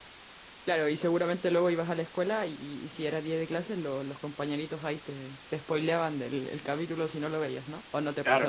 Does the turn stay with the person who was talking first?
No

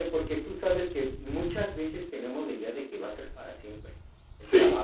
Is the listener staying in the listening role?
Yes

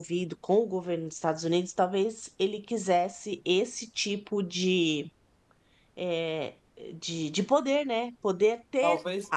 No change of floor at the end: Yes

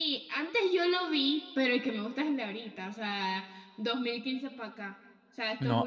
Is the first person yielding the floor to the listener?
Yes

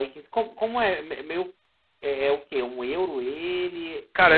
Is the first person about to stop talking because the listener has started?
Yes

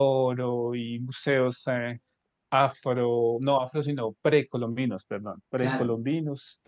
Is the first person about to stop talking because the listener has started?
No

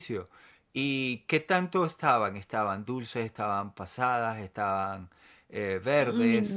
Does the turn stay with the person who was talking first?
No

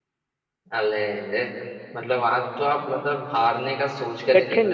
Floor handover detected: No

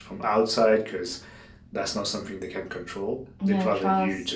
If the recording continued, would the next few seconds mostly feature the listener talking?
No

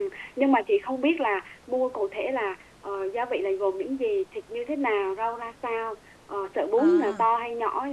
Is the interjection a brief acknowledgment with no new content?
Yes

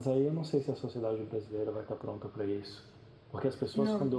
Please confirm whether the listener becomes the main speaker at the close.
No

